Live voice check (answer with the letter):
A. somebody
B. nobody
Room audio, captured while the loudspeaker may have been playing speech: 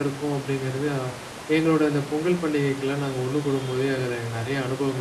A